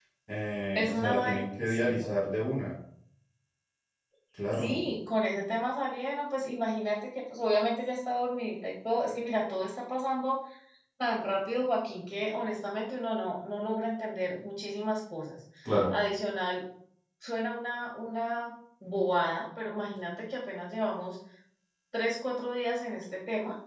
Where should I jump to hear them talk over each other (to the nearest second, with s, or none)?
1 s